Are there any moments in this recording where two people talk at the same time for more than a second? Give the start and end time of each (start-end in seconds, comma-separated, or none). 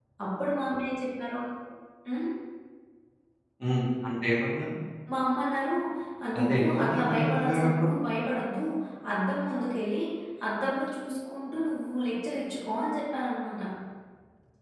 6.4-7.9